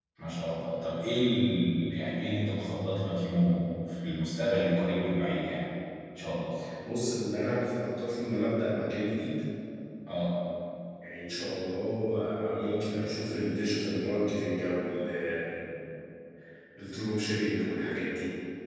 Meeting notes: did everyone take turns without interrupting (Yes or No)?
Yes